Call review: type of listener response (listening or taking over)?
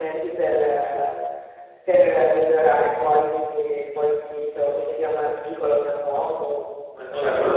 taking over